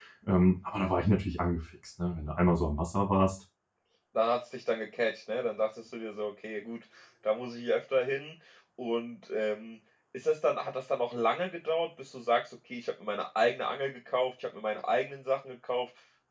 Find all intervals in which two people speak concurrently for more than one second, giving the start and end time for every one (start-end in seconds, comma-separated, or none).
none